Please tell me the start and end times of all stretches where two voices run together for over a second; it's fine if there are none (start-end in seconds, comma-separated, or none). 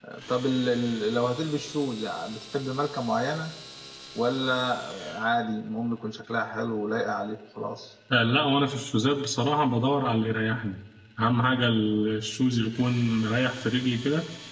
none